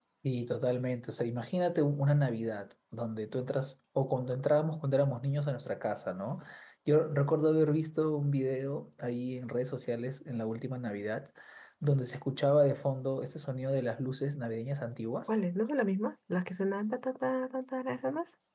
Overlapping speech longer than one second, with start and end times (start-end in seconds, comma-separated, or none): none